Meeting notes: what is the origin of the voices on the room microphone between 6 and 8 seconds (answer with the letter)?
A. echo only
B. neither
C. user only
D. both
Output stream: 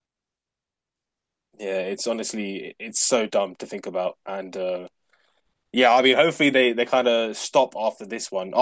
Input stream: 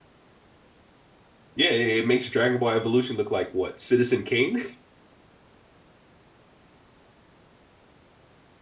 B